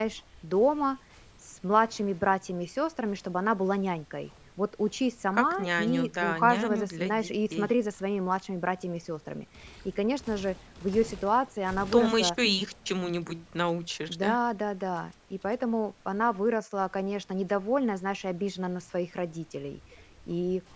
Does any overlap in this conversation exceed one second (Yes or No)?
Yes